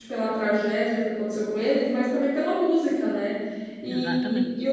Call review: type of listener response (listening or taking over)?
listening